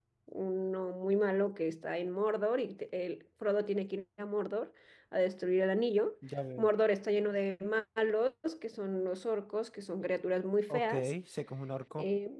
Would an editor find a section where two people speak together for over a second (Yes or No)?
No